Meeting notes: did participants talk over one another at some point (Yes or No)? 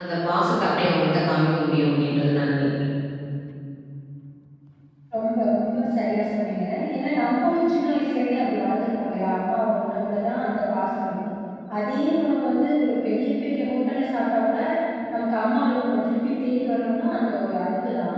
No